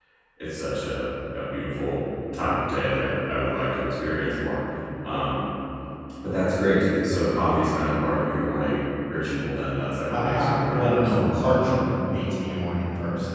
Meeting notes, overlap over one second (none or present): present